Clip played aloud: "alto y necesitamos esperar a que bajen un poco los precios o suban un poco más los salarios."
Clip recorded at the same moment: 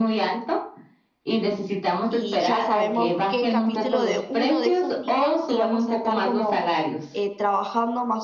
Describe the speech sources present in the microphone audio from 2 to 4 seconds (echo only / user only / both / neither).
both